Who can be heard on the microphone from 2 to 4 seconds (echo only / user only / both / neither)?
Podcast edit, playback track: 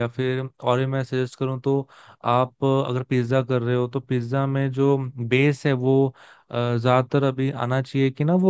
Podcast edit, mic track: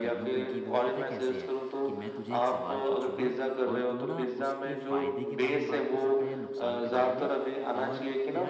both